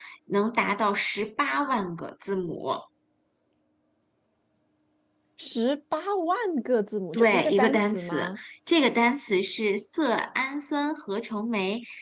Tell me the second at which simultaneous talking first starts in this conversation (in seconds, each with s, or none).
7.1 s